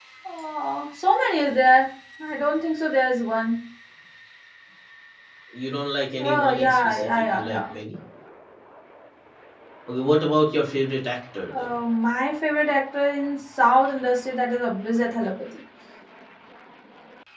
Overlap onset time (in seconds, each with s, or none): 6.2 s